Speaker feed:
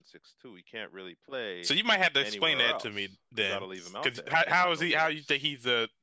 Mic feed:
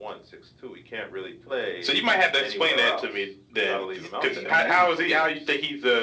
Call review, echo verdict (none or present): present